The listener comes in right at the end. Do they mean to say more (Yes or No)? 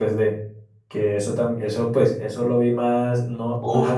Yes